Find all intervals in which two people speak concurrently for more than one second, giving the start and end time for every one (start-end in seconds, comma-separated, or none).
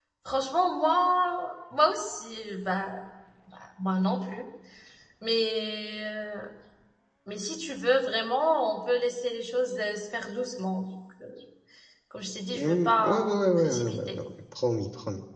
12.5-14.2